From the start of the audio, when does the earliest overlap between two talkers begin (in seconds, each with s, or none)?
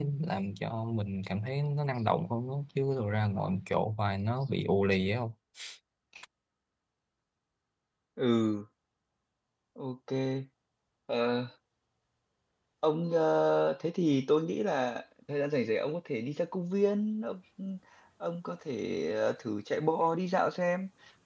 none